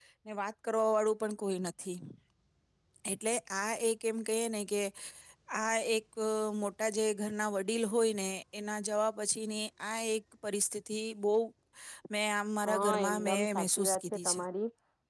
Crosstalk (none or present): present